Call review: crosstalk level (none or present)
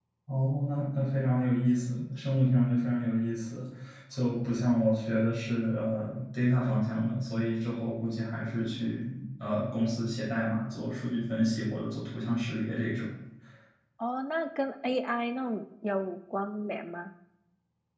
none